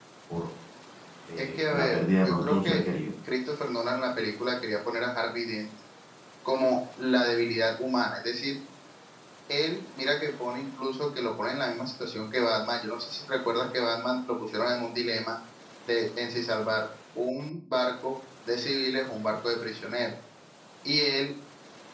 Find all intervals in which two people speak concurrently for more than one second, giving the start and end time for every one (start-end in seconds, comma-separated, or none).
1.4-2.8